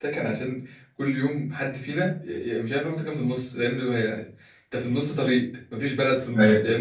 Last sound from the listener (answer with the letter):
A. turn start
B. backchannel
B